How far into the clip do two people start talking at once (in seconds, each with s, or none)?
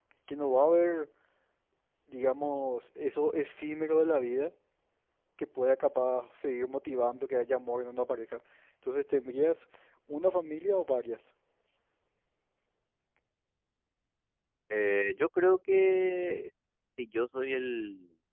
none